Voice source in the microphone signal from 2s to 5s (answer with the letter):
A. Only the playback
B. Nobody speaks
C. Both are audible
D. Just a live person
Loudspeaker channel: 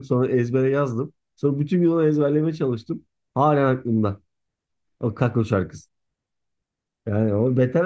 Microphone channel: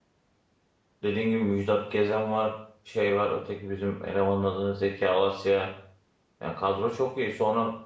D